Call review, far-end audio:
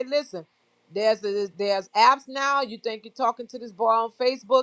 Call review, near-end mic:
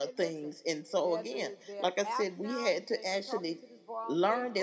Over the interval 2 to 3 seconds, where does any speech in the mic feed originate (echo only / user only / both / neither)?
both